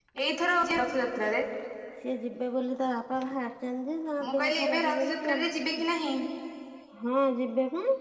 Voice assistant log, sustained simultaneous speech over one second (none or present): present